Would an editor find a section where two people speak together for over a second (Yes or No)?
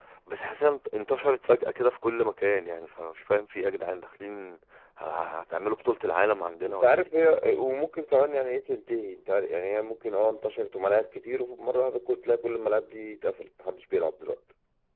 No